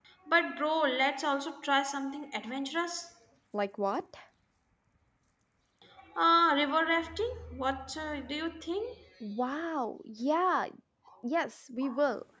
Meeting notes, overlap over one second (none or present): none